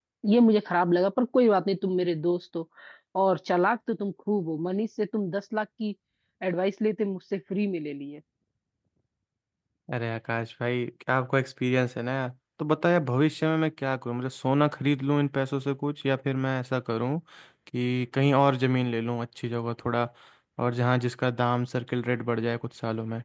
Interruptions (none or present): none